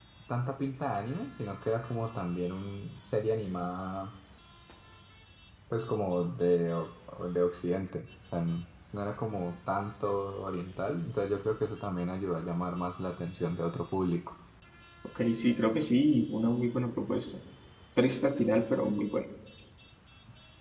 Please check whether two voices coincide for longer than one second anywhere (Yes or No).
No